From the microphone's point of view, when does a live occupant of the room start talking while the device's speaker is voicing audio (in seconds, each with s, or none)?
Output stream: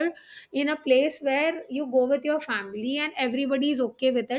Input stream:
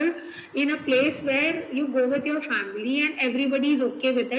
none